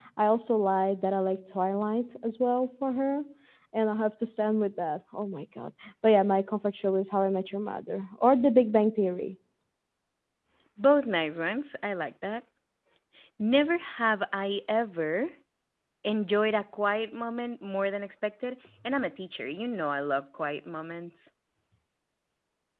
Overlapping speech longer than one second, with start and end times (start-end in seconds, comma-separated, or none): none